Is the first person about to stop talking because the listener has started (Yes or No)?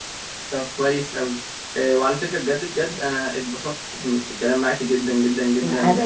Yes